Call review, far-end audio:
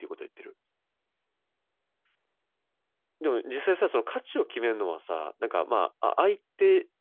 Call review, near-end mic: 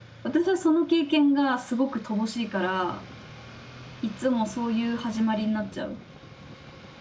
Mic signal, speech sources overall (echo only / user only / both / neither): user only